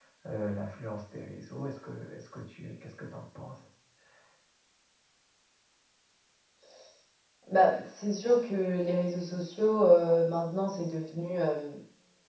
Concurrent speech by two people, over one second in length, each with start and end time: none

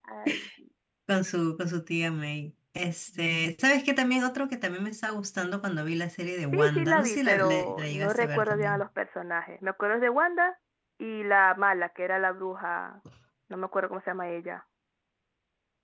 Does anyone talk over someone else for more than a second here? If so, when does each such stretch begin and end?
6.5-8.8

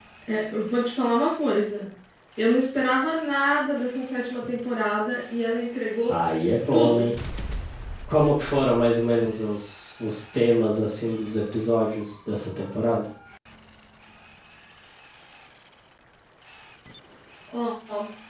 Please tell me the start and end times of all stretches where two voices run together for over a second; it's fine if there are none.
none

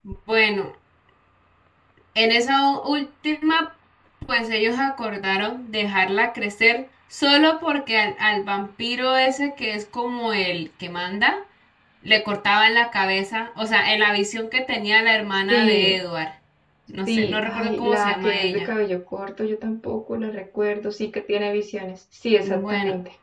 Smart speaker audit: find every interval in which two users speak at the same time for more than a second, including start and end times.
17.1-18.7

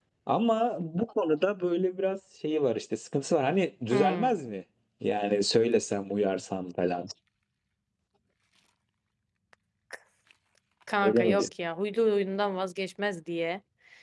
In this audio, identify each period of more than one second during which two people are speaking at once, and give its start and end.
none

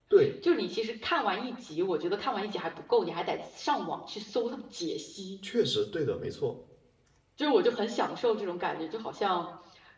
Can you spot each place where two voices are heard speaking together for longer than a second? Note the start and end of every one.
none

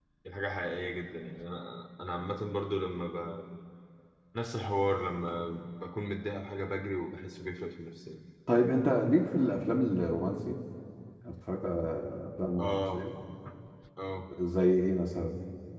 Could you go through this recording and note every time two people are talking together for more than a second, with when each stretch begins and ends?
none

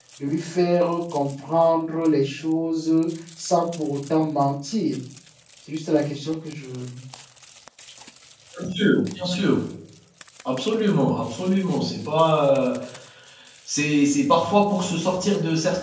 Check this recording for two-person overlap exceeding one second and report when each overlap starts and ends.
none

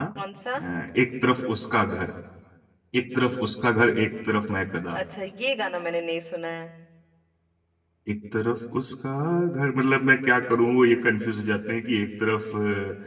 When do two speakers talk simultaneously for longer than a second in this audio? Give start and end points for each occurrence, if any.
none

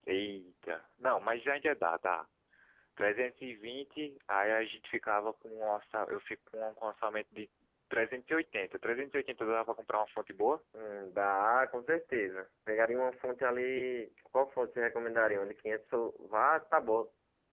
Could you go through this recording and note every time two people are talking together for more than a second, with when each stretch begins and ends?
none

